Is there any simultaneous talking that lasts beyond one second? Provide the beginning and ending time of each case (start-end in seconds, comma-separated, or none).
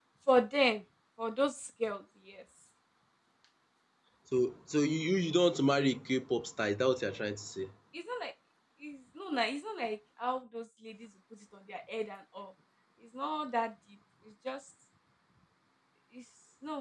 none